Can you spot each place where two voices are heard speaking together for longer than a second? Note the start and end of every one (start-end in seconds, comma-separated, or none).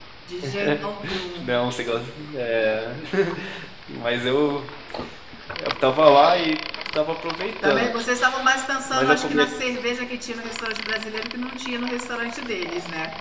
none